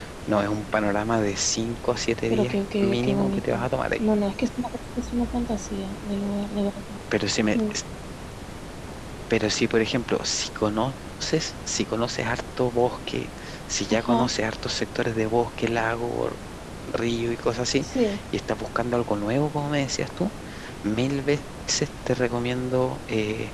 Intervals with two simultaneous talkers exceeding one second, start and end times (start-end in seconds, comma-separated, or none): 2.3-4.0